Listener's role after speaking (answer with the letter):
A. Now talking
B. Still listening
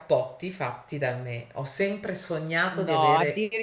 A